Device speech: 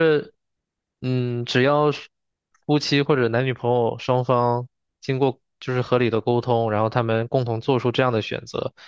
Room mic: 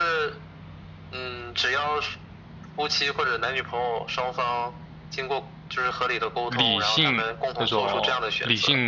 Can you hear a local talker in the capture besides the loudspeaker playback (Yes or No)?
Yes